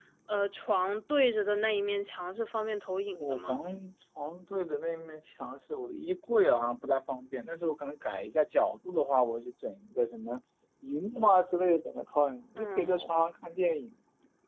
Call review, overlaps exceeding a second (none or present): none